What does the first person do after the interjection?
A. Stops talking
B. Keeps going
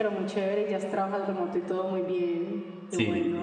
A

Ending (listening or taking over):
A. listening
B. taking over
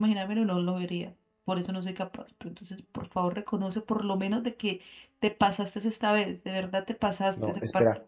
B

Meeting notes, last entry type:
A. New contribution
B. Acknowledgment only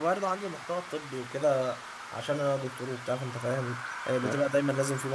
B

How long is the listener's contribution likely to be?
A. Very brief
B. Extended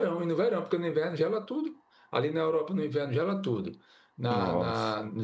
A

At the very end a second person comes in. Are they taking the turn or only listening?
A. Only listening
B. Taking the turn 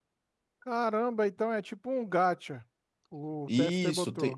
B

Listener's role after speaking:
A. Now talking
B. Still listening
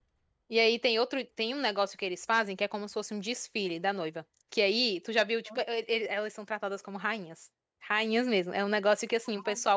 B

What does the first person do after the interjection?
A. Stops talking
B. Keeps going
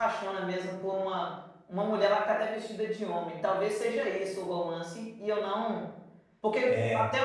B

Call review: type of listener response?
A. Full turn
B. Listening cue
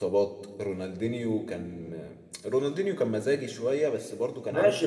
A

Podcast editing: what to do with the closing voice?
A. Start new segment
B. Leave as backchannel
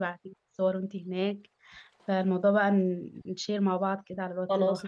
A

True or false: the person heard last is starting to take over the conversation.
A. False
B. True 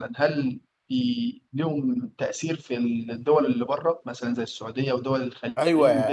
B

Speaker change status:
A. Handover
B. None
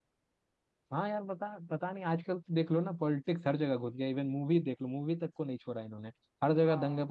B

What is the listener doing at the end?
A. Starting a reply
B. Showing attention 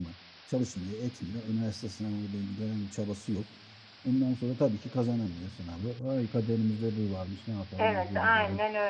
A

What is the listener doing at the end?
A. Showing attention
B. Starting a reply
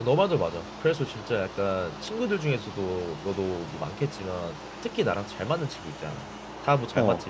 A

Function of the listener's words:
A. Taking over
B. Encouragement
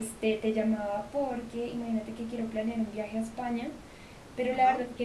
B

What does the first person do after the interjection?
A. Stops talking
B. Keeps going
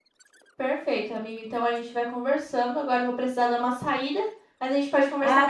A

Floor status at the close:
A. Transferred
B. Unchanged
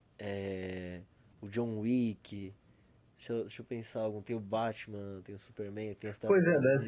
A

